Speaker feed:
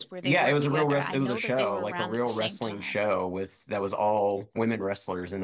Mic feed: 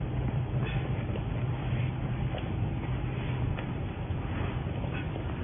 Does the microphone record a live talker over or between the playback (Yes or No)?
No